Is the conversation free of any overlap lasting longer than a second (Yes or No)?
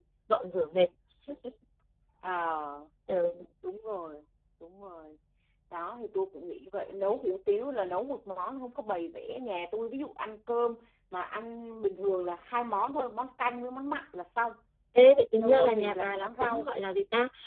No